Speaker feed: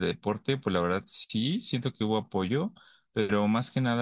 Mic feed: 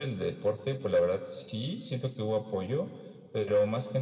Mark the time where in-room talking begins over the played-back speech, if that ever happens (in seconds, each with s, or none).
none